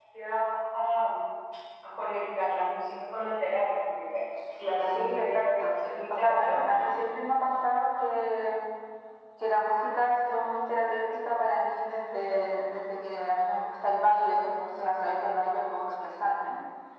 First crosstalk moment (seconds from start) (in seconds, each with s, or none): 4.8 s